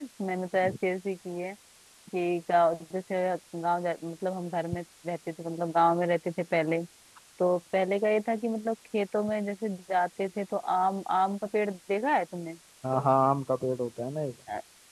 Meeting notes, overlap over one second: none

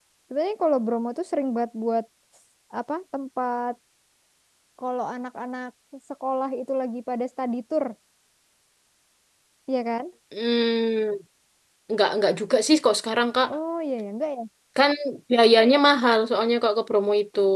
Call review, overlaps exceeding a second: none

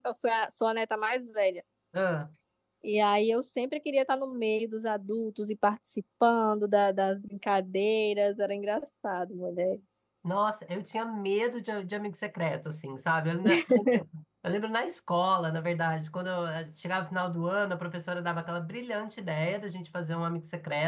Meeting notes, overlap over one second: none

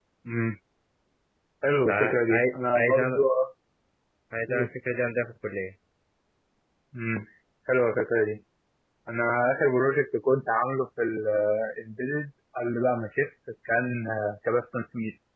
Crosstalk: present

